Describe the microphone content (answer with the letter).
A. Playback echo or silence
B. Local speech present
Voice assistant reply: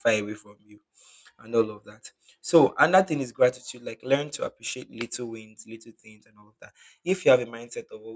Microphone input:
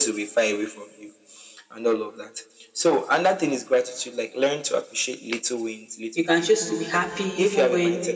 B